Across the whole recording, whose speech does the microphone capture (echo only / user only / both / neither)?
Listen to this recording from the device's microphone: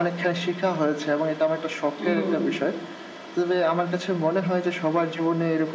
both